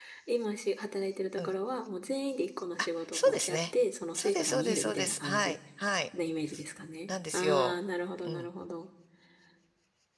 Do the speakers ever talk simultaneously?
Yes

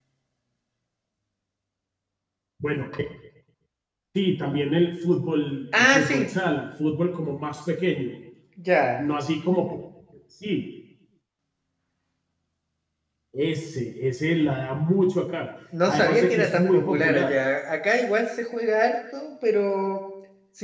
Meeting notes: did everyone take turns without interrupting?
No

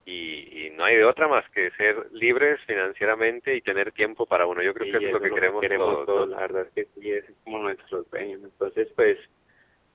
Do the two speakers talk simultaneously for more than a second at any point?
Yes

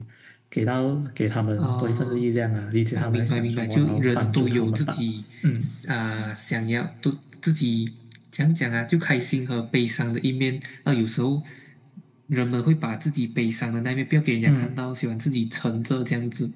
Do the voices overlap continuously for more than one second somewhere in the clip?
Yes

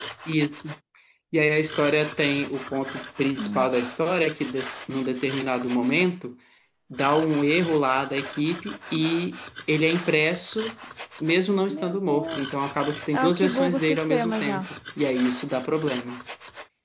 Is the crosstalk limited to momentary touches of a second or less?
No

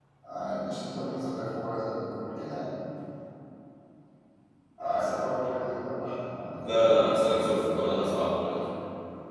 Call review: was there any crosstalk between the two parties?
Yes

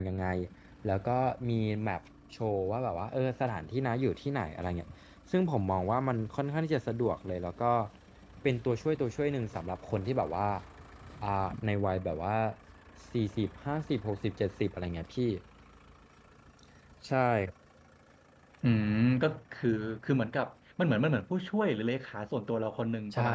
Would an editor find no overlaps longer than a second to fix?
Yes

